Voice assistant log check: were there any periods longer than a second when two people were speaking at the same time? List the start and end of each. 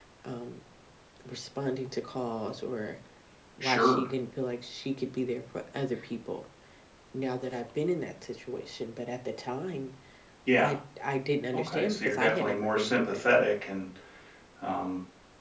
11.5-13.2

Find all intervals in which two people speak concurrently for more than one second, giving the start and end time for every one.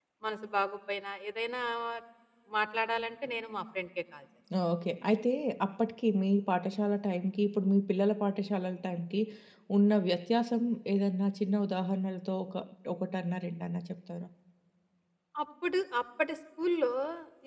none

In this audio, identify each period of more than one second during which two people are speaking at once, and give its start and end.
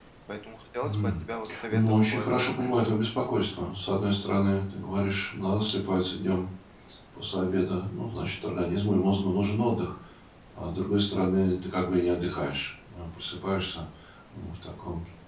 1.7-2.9

